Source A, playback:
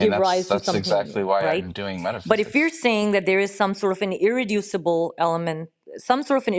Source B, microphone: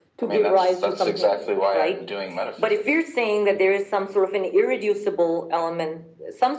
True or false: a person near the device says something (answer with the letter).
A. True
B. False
B